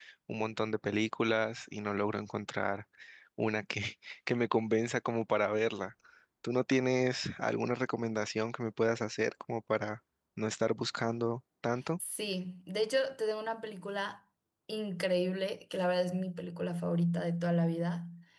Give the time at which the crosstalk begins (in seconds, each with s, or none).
none